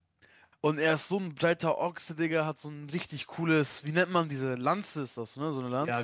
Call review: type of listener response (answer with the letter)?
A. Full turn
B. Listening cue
A